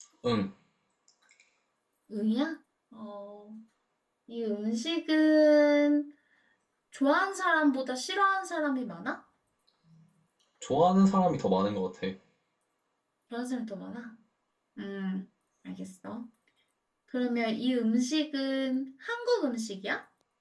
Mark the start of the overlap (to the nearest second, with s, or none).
none